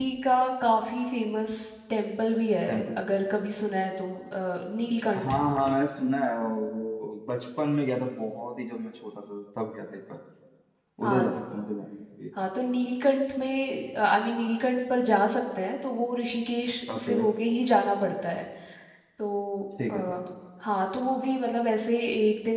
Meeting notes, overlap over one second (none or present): none